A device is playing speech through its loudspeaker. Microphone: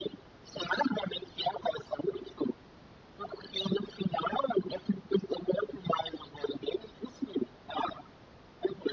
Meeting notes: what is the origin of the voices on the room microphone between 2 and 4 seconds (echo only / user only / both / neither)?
echo only